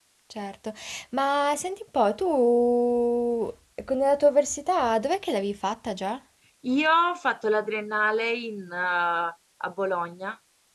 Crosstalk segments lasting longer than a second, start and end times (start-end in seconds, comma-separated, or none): none